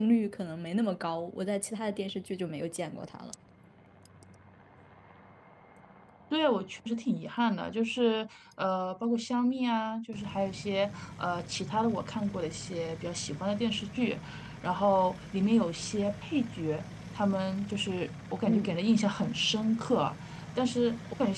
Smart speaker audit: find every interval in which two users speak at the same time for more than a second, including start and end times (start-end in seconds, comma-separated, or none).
none